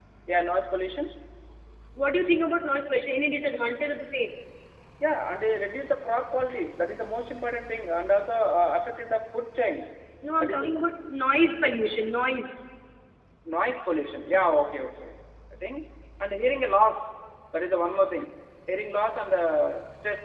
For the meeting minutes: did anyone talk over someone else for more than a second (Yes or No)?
No